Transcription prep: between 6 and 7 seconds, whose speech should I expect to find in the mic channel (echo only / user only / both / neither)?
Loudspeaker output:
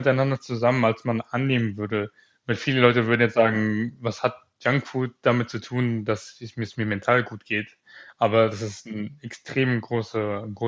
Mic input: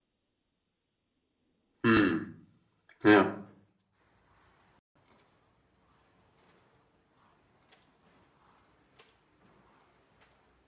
neither